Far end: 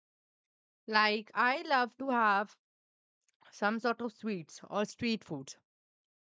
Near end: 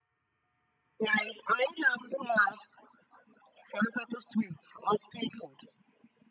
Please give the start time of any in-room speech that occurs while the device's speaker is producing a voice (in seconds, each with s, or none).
none